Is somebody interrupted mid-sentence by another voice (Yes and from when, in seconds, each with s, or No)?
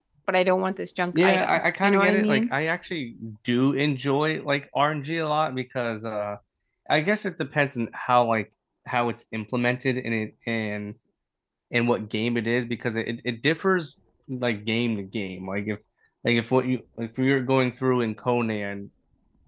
Yes, from 1.1 s